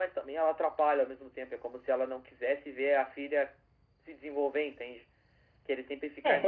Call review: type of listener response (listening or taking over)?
taking over